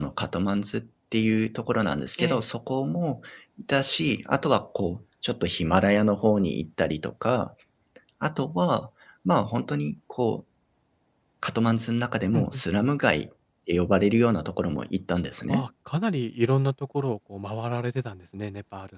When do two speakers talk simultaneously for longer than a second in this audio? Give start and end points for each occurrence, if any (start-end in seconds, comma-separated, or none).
none